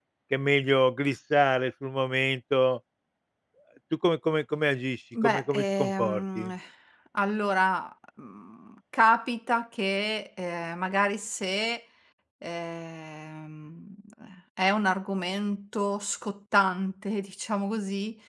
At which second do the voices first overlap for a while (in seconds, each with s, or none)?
5.1 s